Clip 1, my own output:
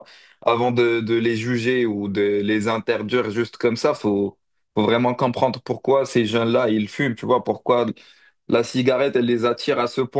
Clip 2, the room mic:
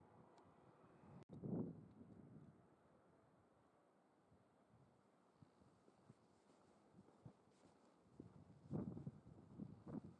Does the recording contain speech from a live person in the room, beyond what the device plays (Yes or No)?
No